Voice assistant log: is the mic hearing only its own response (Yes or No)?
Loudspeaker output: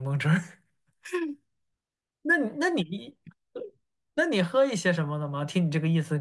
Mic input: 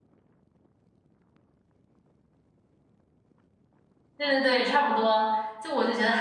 No